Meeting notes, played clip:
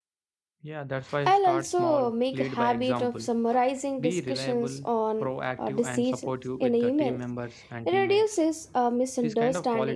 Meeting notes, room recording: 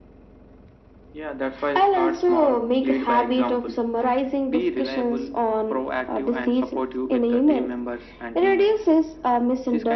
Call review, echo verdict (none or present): present